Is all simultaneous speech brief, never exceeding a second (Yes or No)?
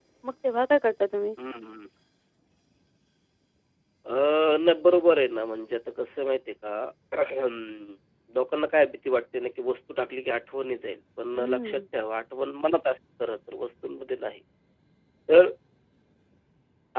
Yes